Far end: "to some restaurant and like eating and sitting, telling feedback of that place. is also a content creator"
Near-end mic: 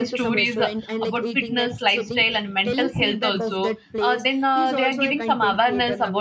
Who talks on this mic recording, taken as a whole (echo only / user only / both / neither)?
both